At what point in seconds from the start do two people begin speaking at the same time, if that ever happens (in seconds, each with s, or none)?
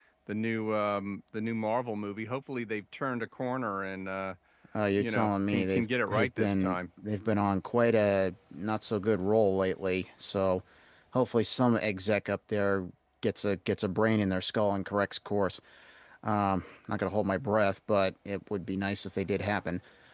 5.0 s